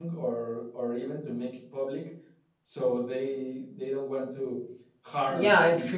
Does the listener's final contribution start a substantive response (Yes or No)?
Yes